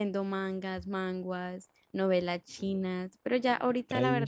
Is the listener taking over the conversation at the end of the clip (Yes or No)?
No